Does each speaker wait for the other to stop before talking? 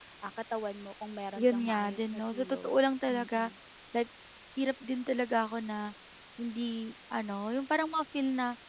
No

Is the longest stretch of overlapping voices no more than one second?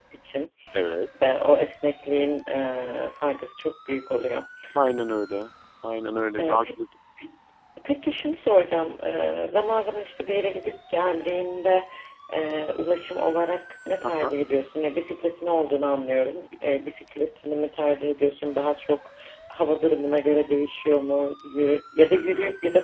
Yes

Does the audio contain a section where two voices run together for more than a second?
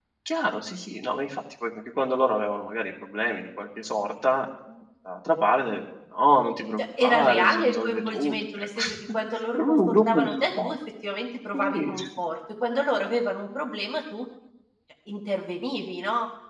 Yes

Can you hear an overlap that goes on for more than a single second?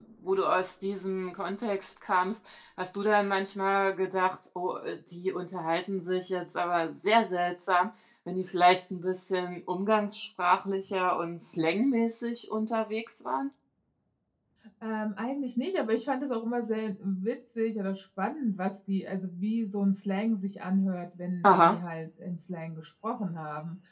No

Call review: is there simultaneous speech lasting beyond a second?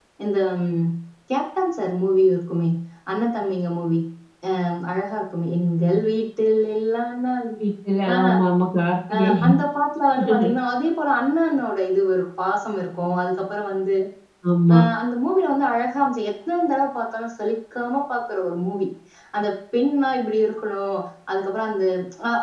No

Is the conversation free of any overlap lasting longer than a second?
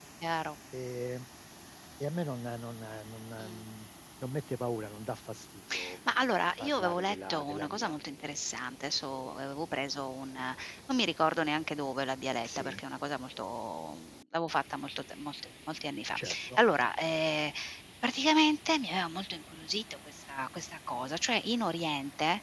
No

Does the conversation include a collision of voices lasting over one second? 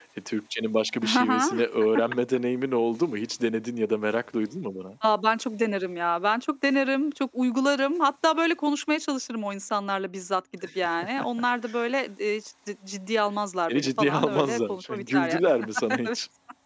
Yes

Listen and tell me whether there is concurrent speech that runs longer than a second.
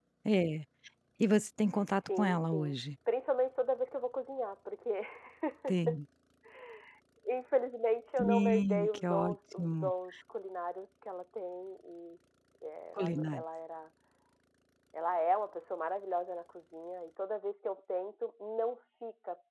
Yes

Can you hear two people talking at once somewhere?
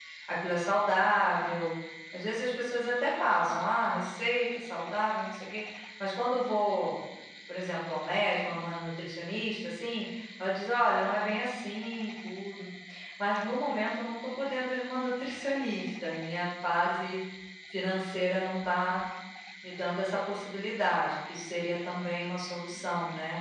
No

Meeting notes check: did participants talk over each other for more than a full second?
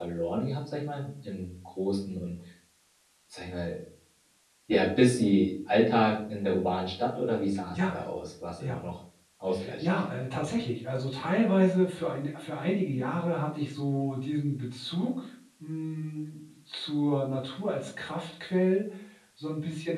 No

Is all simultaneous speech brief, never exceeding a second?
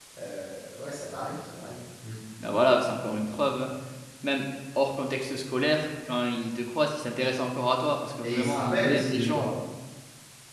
No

